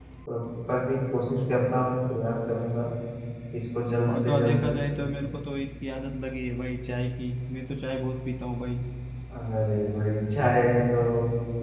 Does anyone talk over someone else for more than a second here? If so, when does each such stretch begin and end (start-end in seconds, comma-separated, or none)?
none